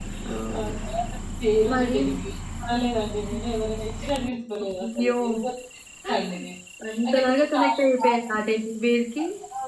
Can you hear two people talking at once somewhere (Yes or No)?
Yes